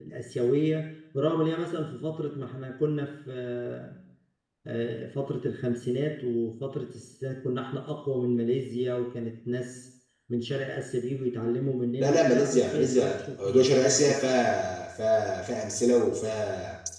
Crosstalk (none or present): present